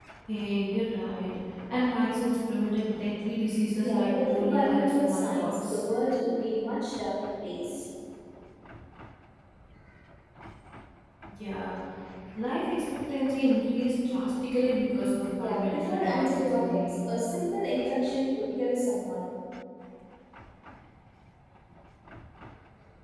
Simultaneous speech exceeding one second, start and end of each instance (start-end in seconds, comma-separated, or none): 3.7-5.8, 15.3-17.0